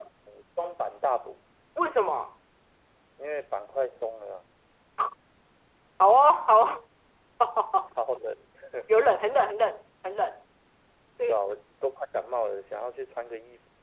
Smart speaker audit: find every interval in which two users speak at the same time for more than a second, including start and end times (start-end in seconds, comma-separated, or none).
none